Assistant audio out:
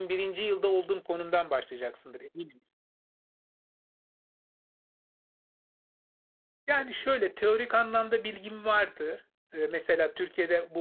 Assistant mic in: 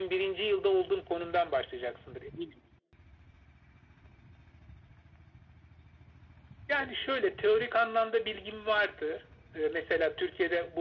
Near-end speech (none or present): none